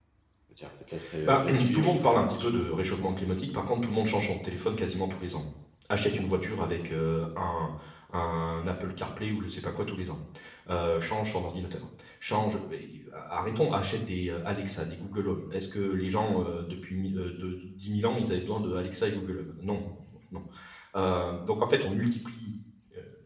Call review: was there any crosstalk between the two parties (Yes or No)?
Yes